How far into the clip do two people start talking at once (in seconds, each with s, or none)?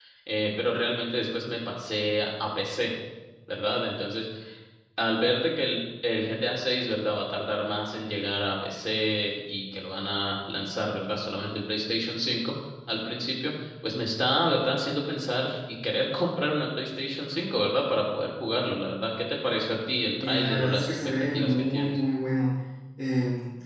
20.1 s